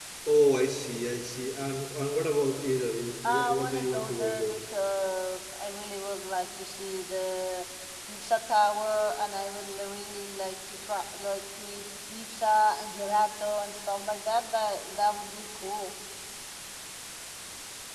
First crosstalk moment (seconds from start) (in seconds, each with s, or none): 3.2 s